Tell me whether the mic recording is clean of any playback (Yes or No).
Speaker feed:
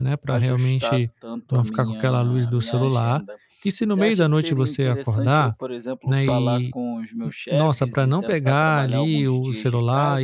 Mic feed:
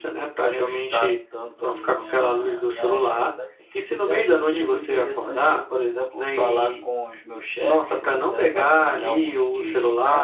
No